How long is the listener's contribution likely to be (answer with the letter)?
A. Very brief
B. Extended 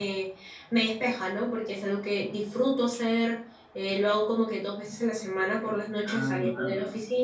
A